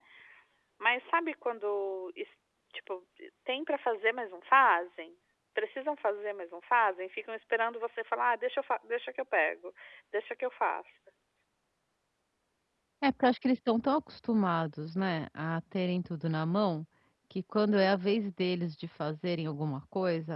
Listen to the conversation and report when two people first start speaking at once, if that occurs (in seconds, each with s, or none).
none